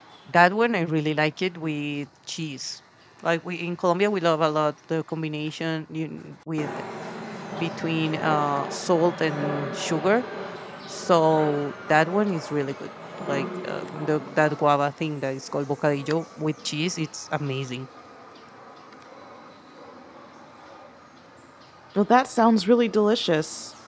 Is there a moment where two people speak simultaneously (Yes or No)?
No